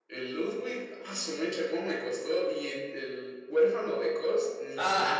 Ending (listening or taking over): taking over